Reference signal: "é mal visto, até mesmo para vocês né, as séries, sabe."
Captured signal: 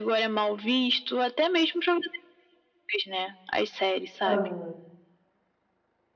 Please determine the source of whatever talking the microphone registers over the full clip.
both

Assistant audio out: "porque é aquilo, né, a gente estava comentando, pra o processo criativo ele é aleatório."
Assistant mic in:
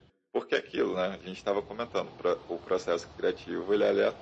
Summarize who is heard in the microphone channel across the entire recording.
echo only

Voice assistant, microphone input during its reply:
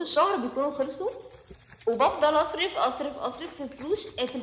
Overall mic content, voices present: echo only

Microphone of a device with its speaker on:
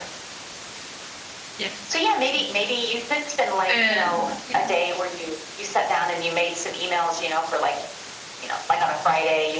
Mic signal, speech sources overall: both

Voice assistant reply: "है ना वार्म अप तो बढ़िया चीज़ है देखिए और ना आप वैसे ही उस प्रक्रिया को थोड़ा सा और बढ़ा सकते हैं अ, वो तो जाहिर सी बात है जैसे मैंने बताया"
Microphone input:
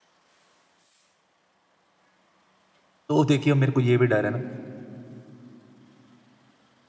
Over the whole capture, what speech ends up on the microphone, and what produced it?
user only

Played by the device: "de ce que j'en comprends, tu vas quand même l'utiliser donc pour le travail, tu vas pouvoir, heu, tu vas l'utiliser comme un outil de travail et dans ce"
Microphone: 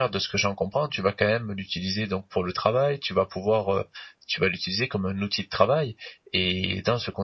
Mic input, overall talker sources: echo only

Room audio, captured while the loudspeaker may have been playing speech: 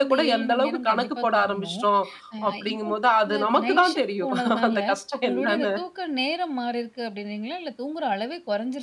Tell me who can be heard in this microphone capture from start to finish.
both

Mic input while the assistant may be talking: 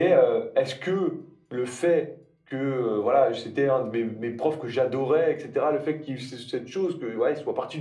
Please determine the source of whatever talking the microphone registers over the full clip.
echo only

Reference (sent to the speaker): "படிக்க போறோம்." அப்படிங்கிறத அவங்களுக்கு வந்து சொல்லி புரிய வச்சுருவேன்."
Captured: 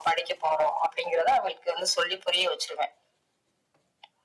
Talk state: echo only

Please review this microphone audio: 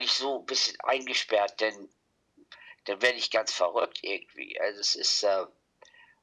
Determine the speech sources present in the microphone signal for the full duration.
echo only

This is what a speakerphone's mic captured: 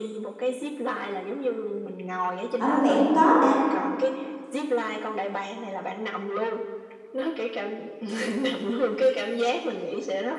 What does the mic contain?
both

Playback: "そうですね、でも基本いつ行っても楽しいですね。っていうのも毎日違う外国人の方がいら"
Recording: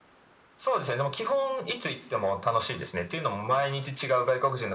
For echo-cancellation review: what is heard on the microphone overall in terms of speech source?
echo only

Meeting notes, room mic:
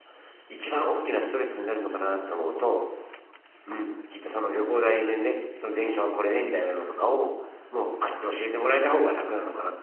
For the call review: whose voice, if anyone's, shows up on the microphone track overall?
user only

